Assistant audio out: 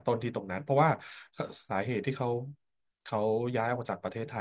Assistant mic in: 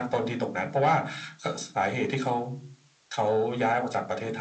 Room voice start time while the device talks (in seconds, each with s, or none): none